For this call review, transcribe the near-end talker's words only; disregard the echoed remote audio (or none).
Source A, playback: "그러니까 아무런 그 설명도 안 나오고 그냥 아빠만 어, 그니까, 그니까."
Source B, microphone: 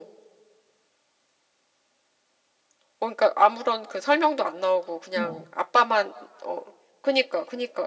어,